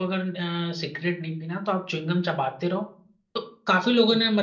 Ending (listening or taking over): listening